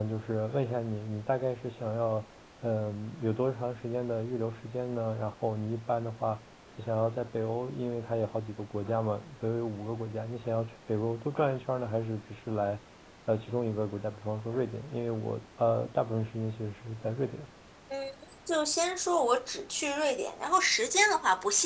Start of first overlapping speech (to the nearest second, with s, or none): none